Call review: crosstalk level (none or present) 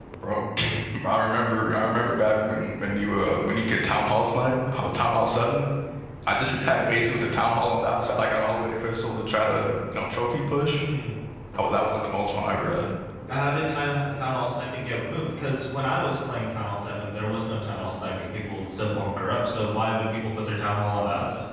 none